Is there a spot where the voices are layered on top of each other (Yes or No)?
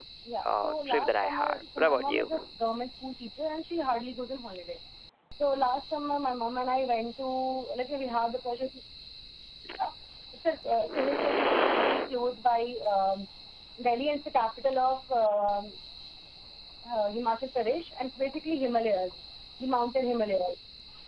Yes